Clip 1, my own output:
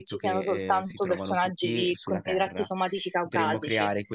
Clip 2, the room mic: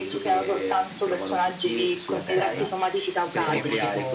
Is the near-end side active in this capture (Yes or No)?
Yes